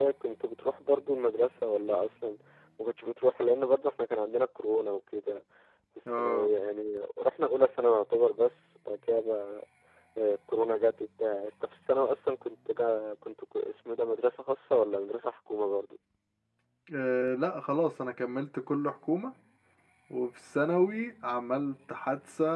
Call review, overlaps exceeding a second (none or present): none